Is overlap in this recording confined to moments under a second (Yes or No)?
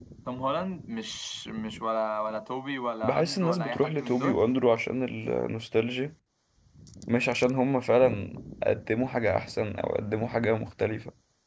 No